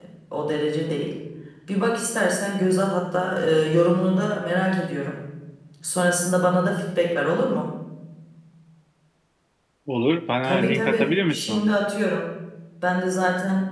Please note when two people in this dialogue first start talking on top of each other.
10.4 s

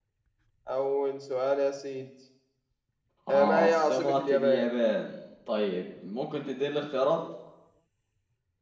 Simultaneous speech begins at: 3.3 s

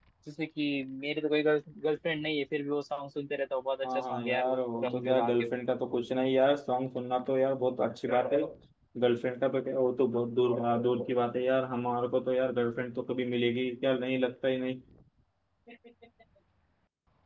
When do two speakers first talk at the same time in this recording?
3.8 s

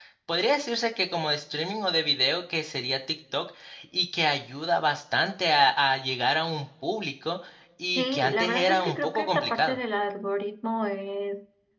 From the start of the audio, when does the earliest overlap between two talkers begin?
8.0 s

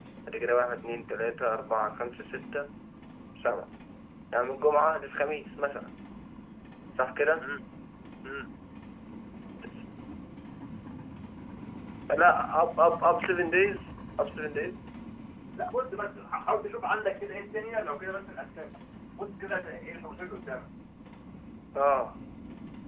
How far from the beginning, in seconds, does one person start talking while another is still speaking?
none

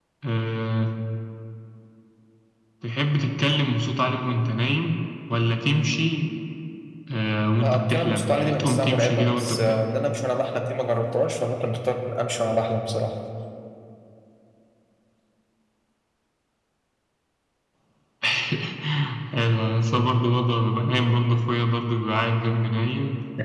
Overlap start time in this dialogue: 7.6 s

